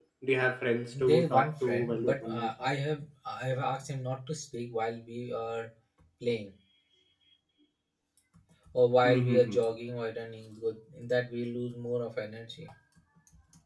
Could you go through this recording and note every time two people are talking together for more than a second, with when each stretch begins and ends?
0.9-2.5

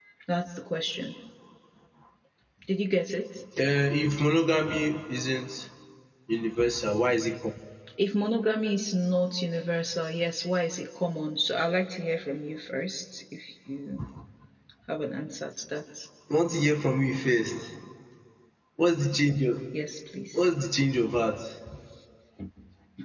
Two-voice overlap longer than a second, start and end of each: none

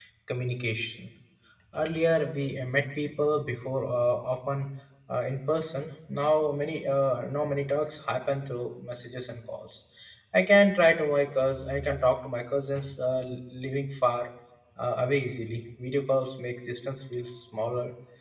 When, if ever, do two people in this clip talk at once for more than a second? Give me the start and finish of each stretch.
none

